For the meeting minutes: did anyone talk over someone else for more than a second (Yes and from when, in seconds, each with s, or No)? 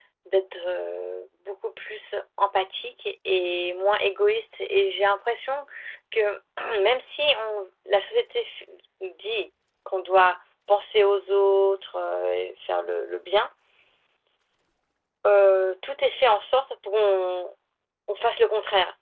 No